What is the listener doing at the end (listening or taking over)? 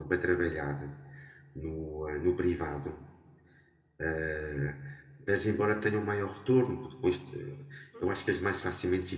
listening